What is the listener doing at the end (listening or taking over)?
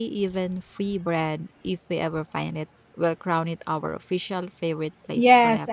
taking over